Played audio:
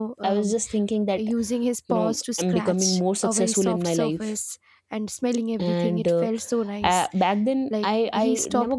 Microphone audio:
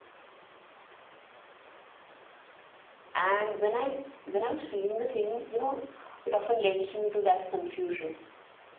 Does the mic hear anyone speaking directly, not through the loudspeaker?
Yes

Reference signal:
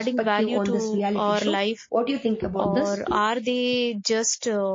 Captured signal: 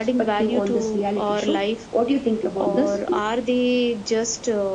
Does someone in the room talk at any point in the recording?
No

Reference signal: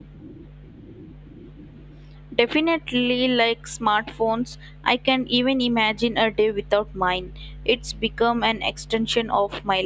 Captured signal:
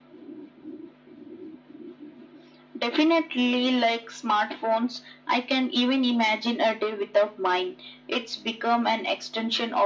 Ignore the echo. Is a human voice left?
No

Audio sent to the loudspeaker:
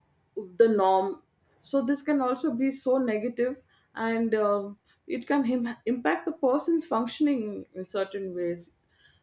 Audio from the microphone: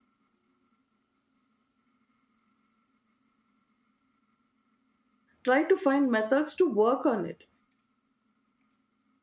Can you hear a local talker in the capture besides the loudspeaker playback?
Yes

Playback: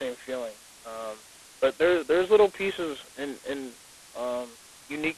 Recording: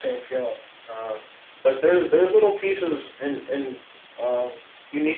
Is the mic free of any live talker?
Yes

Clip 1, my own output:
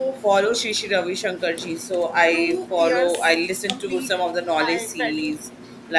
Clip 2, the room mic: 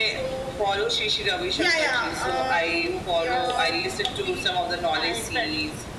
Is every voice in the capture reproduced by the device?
No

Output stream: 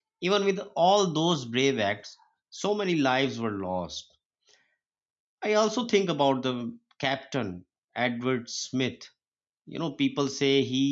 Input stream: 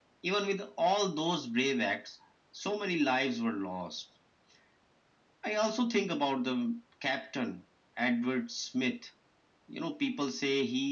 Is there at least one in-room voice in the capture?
No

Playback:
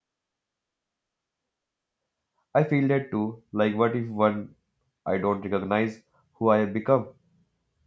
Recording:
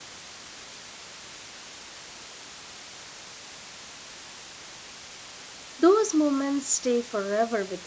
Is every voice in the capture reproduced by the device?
No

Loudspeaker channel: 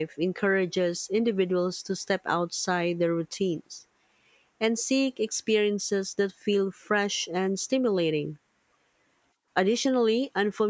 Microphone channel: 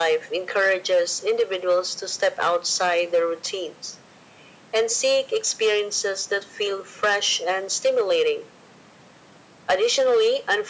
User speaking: No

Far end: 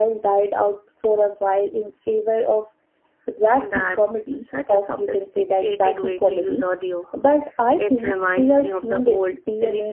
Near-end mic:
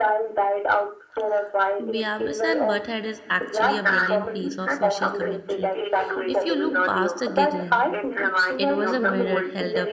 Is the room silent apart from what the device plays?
No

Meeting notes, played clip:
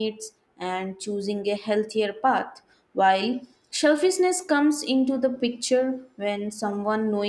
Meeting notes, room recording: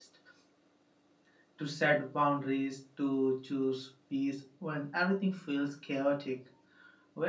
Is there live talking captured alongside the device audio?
Yes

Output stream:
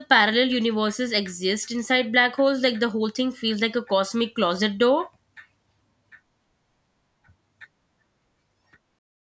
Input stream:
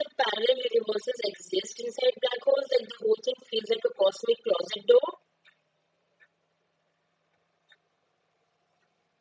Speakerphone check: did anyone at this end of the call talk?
No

